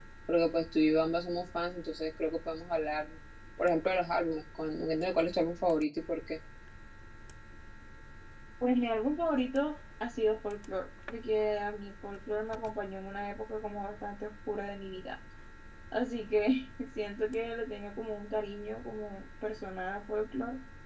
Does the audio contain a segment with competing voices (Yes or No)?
No